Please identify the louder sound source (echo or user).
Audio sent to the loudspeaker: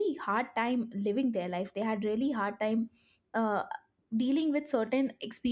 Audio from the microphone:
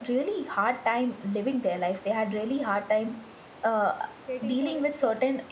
echo